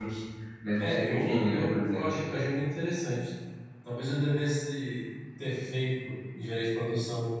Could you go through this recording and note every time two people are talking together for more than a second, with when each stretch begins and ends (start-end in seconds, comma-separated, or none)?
0.8-2.0